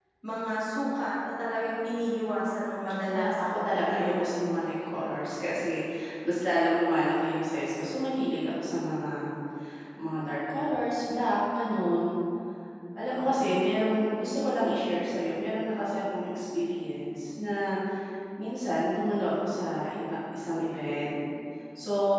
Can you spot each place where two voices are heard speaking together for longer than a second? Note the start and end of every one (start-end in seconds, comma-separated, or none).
3.2-4.4